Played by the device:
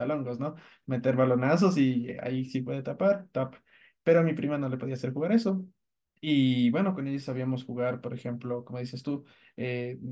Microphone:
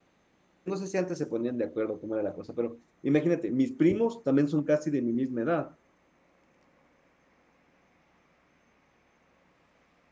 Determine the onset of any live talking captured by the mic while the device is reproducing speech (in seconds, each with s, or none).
0.6 s